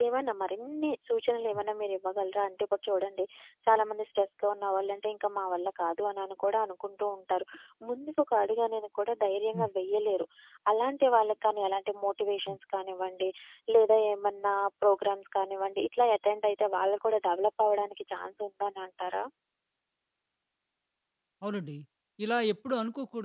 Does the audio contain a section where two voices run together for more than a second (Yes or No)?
No